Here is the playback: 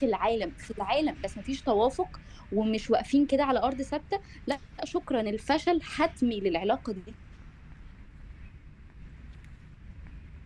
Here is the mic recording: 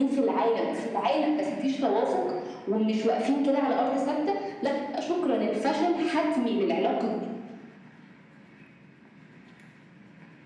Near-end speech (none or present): none